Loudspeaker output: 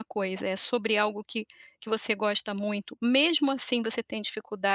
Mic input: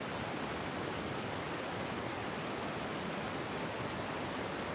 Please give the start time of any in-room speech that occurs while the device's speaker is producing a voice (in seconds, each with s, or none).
none